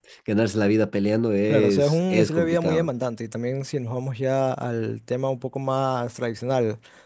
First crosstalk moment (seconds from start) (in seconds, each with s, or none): 1.5 s